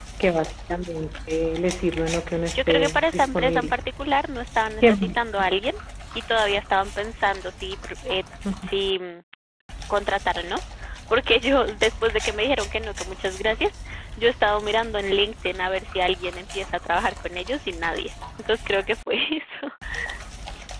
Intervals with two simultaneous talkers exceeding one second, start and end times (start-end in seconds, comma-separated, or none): 2.5-3.8